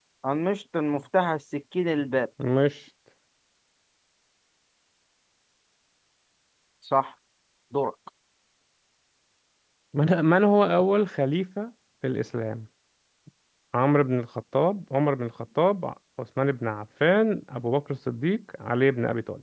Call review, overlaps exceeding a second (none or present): none